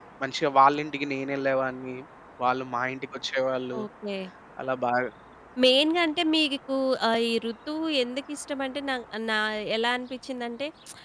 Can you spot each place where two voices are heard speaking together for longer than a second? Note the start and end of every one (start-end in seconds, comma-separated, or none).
none